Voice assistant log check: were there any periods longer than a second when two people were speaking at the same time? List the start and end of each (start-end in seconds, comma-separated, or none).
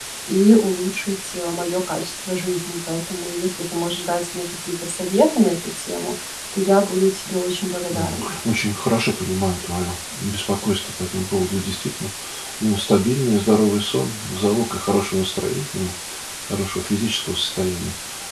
none